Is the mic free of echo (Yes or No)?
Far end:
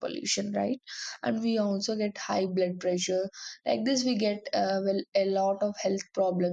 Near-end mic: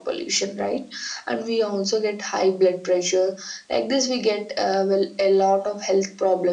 No